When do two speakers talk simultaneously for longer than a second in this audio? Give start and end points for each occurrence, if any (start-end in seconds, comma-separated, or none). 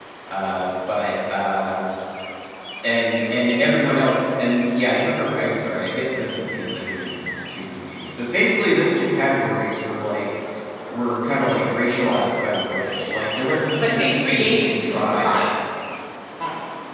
13.8-15.4